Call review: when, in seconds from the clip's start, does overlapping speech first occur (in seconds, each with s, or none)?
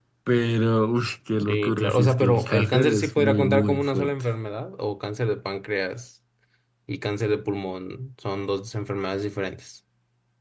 1.5 s